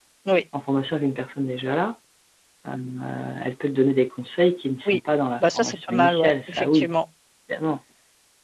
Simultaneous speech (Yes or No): Yes